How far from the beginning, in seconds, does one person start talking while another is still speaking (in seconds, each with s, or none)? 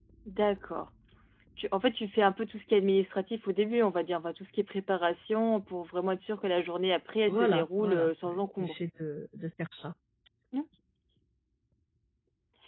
7.3 s